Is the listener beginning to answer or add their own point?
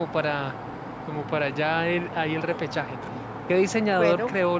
No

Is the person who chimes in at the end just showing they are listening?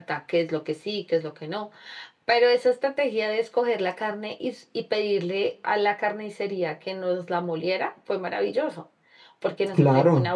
Yes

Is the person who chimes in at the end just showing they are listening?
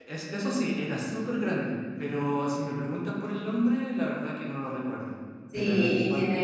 No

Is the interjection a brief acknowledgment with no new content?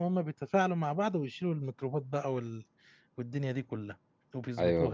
No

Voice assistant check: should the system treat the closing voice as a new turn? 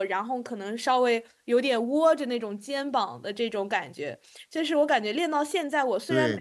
Yes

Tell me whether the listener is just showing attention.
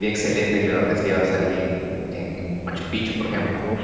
No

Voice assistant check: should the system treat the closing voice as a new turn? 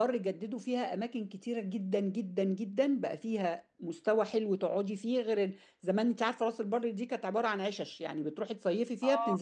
Yes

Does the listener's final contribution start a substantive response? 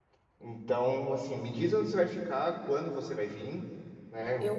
No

